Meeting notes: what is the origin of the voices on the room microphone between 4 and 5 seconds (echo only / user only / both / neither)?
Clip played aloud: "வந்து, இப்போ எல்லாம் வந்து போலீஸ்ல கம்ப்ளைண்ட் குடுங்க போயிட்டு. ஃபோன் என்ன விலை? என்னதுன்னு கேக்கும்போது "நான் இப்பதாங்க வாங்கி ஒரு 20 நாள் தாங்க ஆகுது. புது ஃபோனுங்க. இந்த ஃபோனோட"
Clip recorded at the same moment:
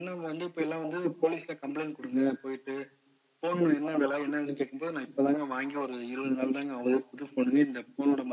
echo only